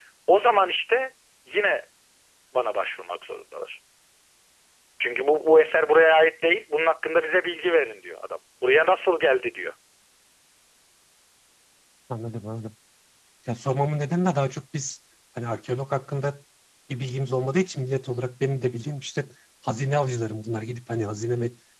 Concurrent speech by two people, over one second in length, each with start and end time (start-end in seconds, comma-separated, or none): none